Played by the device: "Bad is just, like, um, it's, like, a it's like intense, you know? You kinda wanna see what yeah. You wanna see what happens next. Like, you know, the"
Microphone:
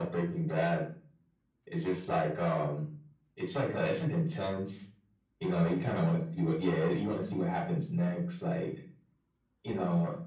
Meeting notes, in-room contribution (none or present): none